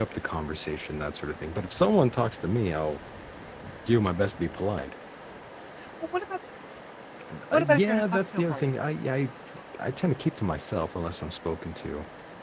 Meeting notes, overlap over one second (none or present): present